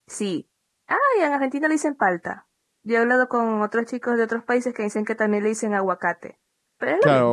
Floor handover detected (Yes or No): Yes